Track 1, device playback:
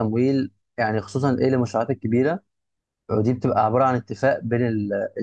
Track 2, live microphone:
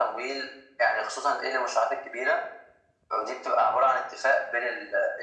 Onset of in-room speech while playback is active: none

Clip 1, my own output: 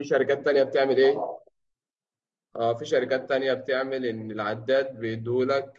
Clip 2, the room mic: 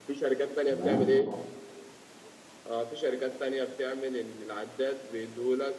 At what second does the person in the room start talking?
1 s

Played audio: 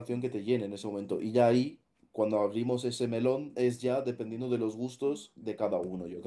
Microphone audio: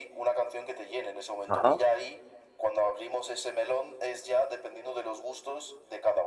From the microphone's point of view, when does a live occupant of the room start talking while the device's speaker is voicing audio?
1 s

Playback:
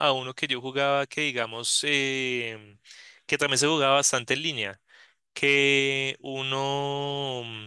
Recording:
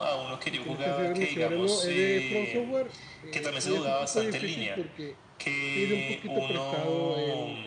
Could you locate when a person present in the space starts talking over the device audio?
0 s

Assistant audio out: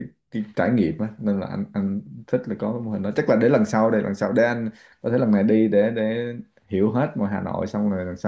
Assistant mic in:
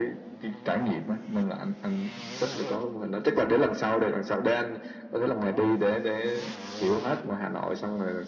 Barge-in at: none

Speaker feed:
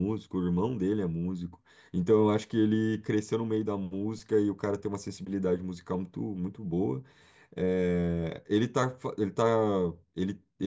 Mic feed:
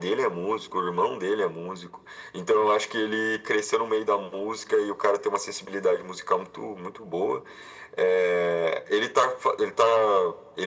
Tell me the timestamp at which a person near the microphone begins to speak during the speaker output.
none

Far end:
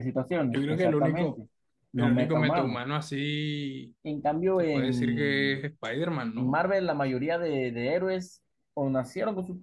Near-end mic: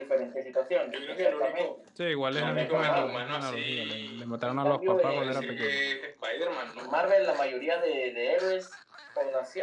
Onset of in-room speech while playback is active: 2 s

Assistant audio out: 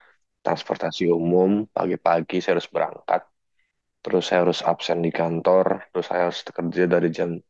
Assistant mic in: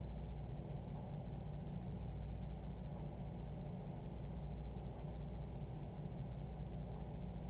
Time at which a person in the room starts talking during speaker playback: none

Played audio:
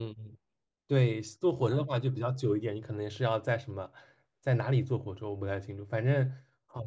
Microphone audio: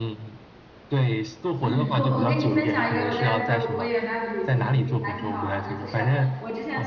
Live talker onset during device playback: 2 s

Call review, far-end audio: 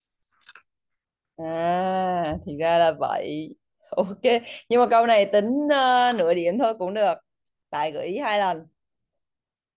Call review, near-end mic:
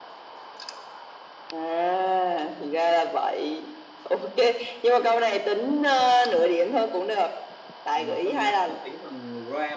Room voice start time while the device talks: 8 s

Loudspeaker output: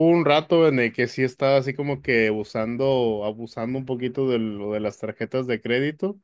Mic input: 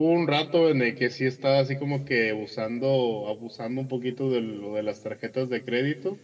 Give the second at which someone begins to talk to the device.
none

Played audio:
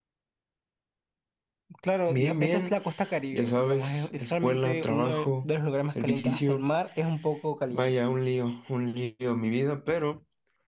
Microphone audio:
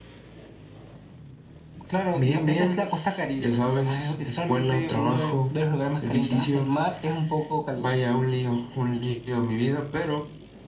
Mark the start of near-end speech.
none

